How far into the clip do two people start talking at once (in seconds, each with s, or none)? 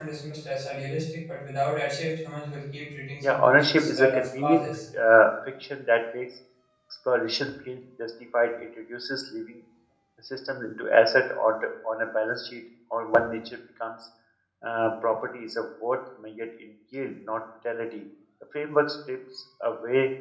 3.2 s